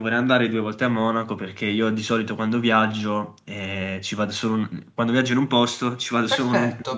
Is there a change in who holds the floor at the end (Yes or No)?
Yes